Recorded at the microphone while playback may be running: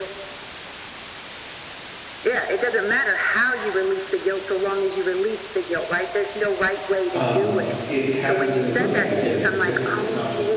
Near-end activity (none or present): present